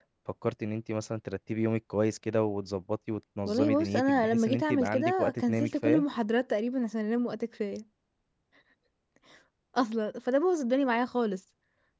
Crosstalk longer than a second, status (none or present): present